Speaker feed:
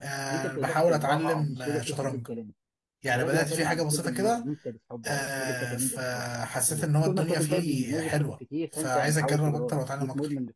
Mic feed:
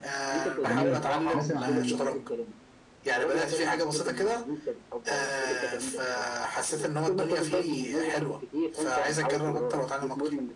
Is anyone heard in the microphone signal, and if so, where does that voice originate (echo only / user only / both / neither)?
both